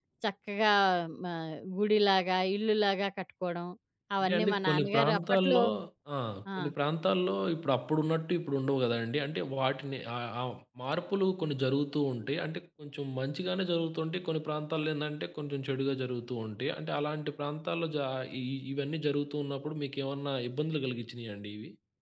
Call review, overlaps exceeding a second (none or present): present